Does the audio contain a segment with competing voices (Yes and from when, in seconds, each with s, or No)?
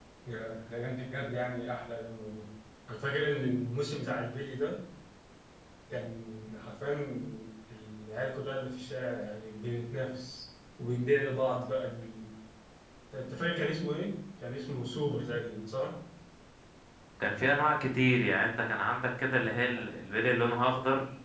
No